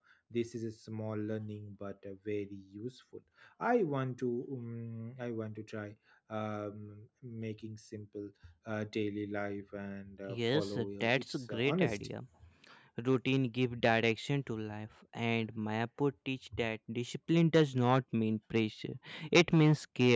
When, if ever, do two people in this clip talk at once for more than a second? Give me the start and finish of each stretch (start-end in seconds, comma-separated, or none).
10.3-12.0